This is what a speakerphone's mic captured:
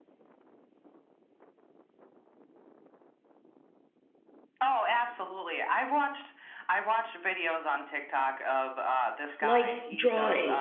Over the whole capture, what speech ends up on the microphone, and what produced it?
both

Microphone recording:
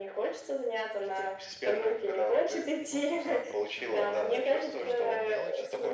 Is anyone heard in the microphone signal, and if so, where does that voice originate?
both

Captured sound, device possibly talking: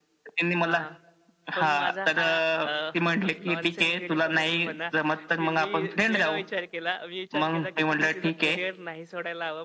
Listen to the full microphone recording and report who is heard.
both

